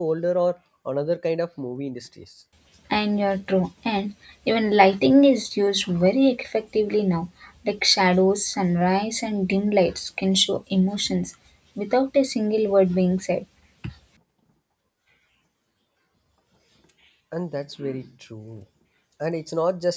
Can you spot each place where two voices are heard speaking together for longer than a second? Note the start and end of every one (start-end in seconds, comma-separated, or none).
none